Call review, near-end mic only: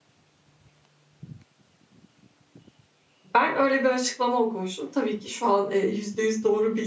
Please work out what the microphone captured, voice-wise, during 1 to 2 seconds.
neither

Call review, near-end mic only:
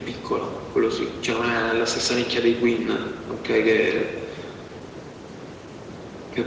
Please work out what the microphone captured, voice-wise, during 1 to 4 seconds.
echo only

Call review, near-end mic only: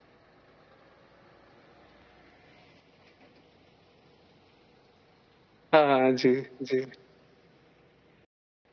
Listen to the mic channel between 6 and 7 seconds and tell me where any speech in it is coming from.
user only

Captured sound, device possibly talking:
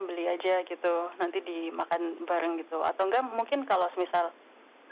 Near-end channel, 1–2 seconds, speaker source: echo only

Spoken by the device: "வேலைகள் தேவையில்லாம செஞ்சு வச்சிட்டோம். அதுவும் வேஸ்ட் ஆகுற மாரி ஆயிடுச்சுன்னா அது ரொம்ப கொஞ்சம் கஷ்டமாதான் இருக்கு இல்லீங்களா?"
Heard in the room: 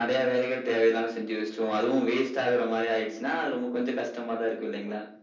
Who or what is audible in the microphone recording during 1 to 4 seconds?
echo only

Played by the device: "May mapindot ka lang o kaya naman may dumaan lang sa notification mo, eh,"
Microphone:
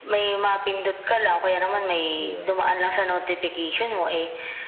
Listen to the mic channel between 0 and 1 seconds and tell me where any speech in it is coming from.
echo only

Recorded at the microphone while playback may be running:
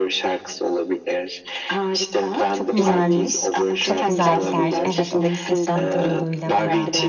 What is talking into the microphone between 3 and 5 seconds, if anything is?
both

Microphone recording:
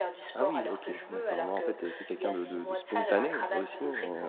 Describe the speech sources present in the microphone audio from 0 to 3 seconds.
both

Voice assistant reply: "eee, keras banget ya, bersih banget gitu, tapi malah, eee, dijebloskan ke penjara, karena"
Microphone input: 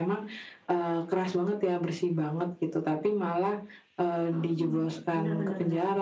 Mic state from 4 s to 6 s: both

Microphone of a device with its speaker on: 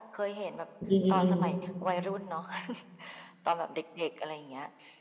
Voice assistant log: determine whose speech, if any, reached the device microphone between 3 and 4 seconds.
echo only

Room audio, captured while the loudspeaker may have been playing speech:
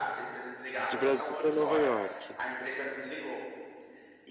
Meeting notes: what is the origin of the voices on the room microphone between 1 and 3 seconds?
both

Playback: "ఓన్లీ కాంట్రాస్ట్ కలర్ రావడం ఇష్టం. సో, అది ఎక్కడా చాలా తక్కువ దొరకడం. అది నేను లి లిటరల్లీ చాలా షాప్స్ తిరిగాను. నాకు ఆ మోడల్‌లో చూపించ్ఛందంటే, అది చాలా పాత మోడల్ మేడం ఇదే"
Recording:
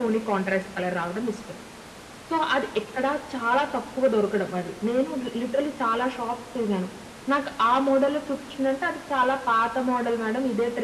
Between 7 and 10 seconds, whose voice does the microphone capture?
echo only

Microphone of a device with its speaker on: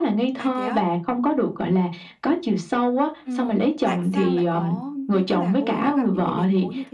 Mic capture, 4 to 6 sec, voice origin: both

